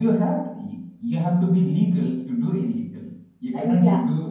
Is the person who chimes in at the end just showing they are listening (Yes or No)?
Yes